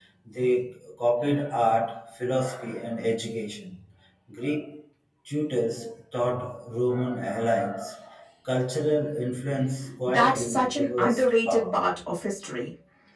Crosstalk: present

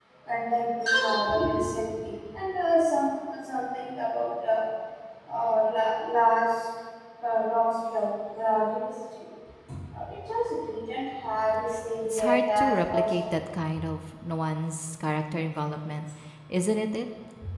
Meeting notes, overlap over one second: present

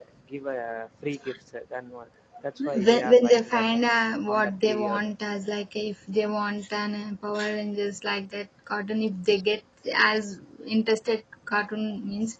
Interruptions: present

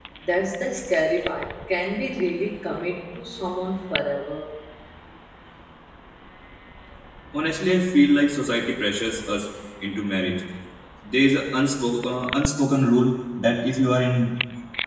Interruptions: none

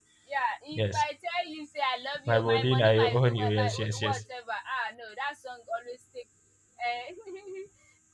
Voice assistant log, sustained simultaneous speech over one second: present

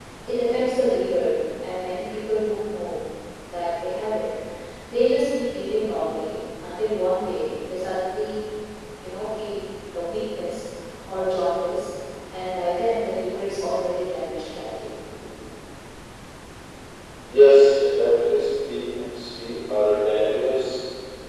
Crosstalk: none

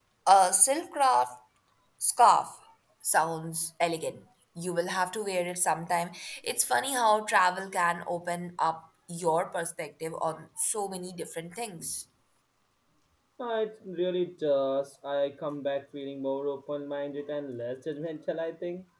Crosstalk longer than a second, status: none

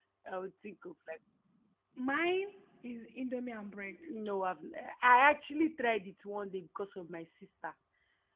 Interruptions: none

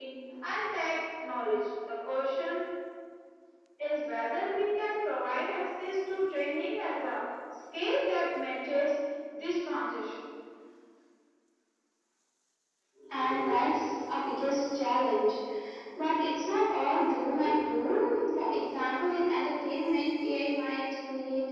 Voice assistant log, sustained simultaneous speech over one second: none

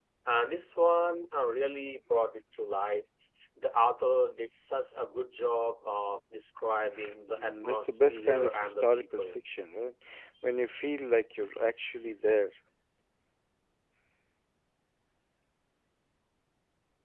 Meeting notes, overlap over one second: present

